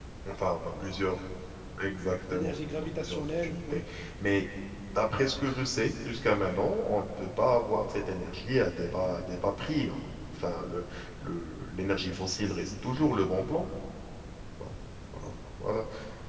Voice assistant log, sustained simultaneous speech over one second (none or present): present